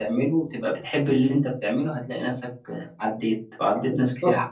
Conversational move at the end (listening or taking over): taking over